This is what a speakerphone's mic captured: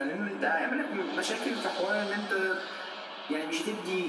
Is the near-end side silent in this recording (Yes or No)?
Yes